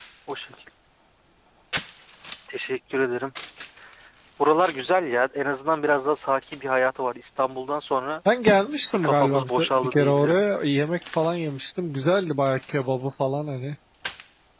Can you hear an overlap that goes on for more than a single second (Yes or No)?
Yes